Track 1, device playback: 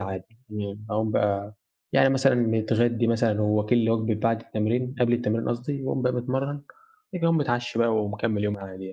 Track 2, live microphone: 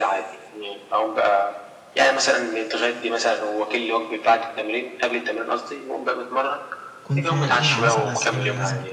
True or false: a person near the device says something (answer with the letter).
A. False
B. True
B